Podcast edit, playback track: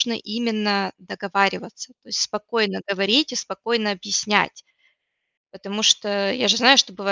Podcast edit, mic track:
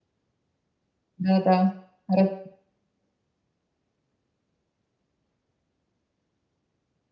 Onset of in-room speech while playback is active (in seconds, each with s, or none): 1.2 s